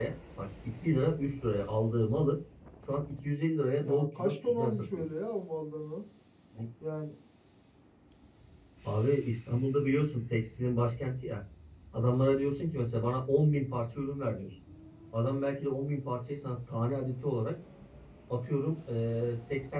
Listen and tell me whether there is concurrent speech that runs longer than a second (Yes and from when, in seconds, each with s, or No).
Yes, from 3.8 s